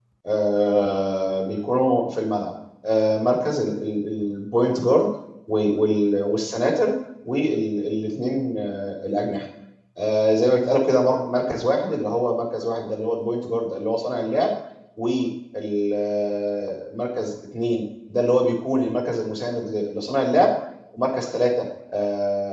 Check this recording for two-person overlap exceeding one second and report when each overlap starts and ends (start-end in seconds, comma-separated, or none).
none